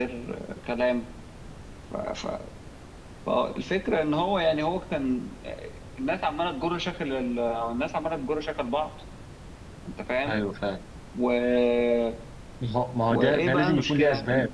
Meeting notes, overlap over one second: present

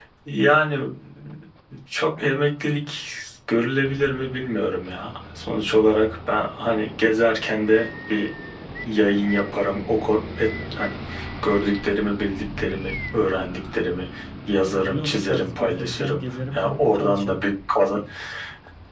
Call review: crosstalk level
present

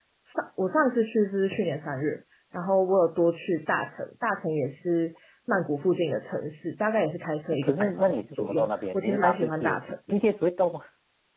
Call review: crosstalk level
present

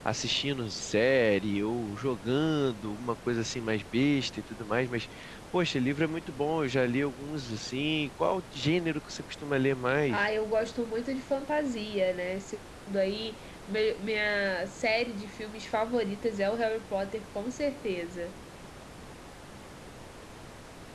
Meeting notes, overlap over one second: none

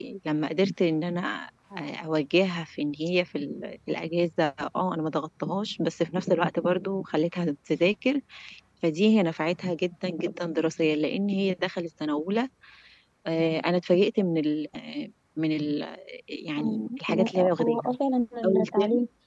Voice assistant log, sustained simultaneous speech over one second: present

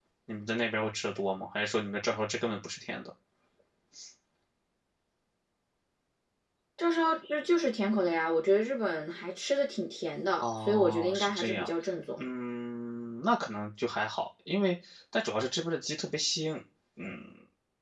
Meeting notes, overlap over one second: present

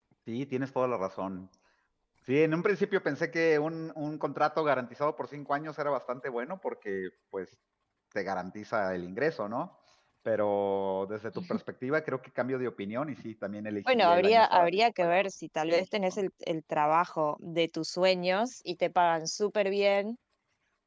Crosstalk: present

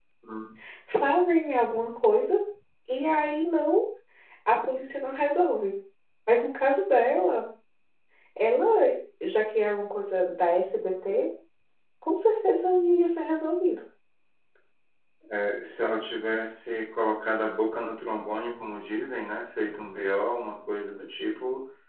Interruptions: none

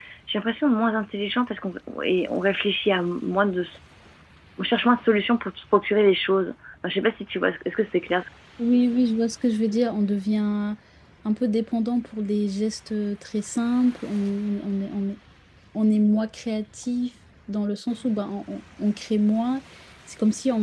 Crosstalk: none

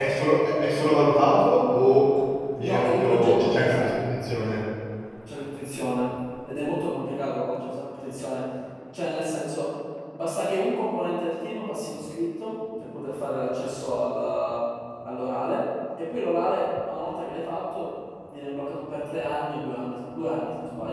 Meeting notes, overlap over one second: present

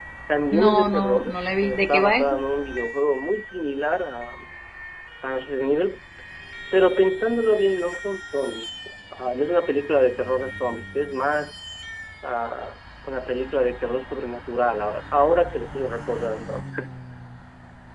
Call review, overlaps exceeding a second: present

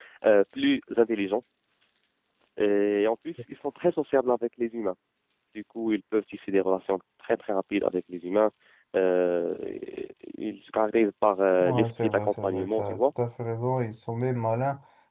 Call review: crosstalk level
present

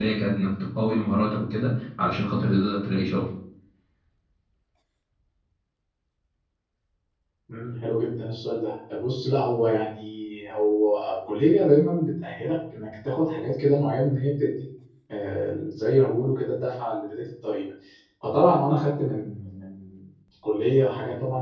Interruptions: none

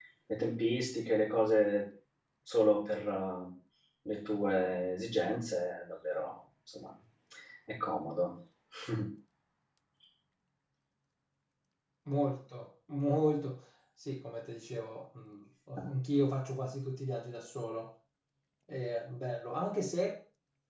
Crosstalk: none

